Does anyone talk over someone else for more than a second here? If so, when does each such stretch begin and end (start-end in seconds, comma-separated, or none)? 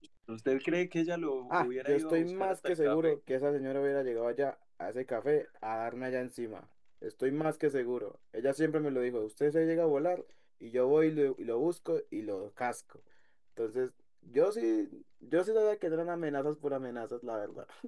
1.5-3.2